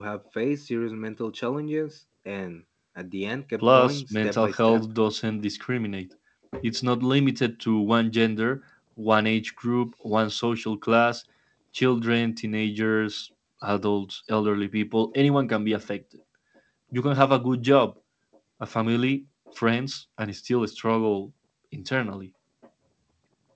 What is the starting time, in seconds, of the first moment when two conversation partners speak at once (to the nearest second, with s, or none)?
4 s